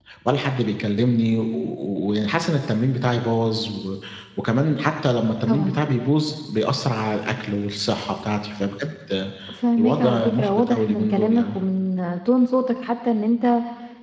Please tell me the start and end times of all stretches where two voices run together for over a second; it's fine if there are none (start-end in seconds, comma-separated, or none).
9.8-11.6